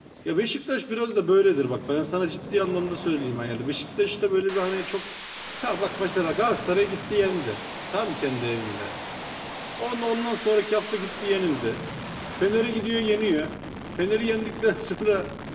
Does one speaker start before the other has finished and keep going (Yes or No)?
No